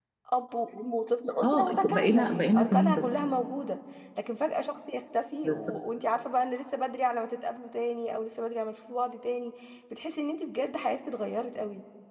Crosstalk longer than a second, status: present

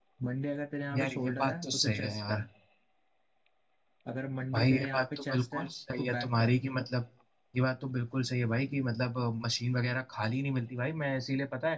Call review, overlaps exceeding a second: present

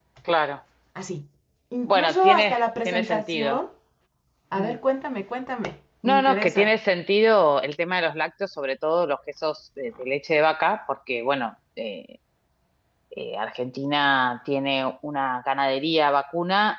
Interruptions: present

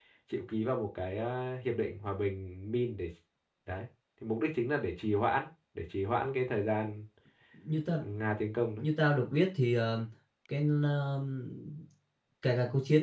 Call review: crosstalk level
none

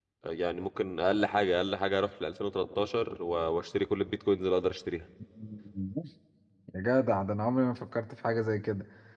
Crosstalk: none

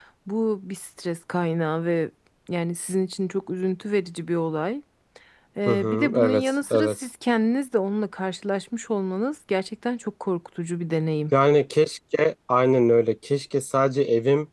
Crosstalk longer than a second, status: present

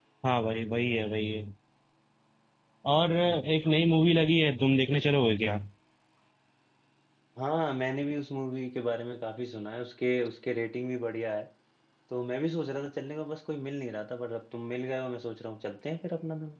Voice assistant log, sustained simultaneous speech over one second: none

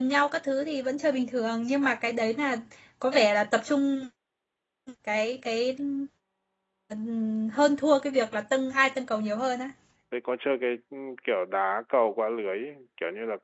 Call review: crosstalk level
none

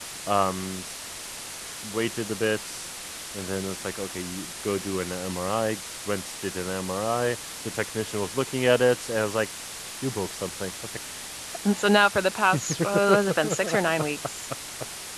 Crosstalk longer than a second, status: none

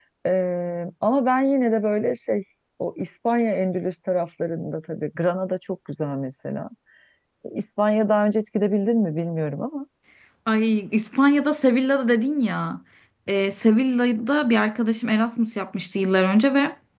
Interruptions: none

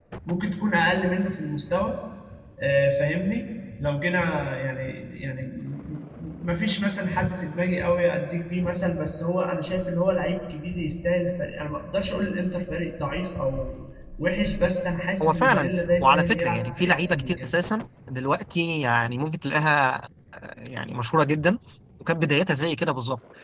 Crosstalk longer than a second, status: present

